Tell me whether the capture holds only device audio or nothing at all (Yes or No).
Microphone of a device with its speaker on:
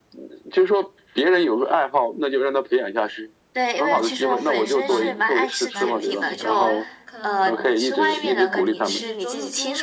No